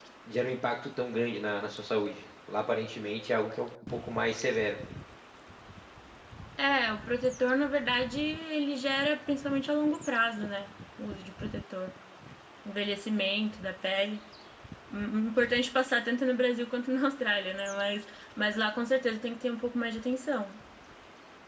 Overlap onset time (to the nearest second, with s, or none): none